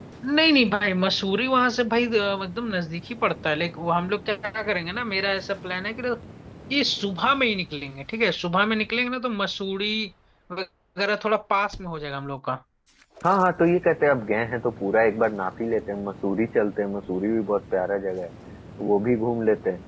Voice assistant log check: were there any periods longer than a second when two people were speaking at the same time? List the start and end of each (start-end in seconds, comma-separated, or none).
none